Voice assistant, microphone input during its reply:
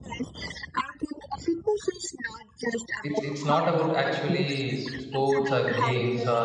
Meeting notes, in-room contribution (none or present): present